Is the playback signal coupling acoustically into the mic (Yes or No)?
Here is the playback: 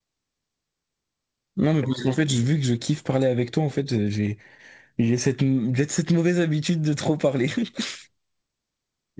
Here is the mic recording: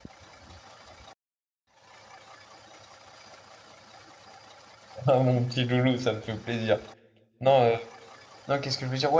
No